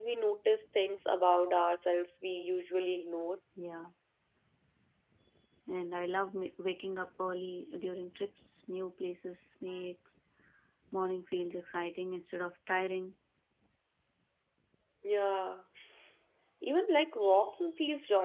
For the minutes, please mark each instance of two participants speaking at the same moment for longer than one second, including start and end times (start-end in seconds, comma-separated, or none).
none